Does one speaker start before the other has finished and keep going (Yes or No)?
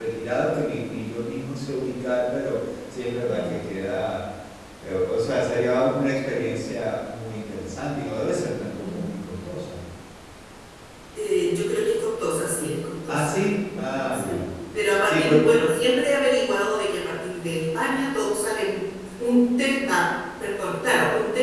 Yes